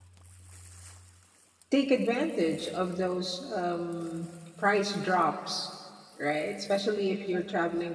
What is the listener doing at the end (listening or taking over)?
listening